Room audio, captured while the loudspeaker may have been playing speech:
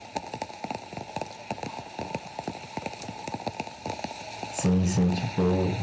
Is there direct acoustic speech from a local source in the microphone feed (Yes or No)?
Yes